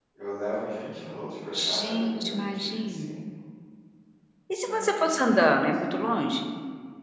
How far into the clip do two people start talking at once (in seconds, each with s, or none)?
1.8 s